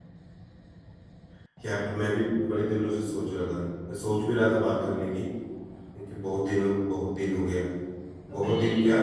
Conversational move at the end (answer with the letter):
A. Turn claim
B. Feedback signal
B